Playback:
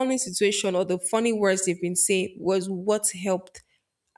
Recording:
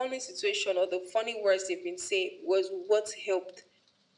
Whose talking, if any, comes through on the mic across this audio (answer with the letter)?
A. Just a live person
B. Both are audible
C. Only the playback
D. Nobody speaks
C